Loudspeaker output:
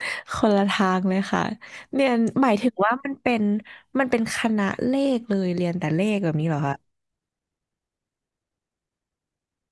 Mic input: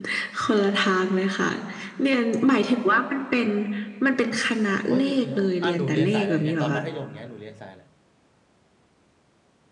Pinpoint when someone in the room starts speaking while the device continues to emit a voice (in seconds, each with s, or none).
4.8 s